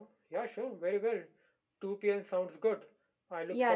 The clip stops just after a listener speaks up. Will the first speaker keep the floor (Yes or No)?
No